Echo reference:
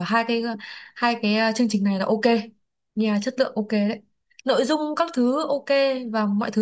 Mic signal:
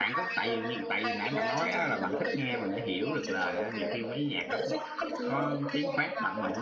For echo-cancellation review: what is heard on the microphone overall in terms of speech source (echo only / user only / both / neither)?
both